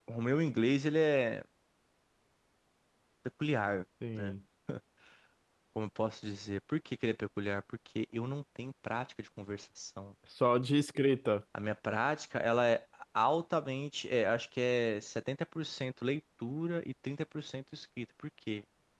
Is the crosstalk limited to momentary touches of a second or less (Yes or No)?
Yes